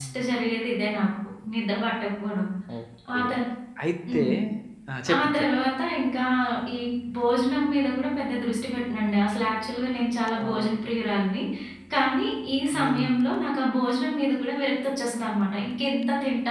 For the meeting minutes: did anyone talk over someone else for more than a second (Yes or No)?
No